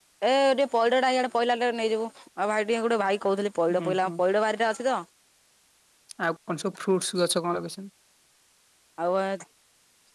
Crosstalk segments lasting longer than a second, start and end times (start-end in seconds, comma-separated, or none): none